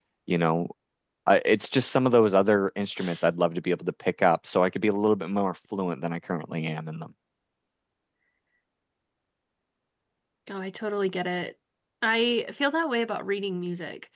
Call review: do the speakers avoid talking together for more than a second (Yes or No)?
Yes